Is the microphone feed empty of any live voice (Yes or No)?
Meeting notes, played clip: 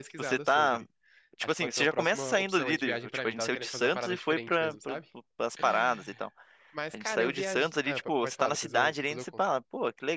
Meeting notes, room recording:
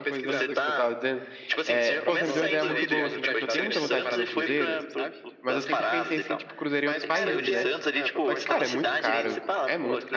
No